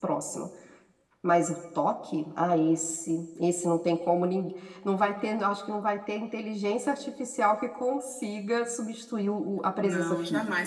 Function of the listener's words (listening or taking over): taking over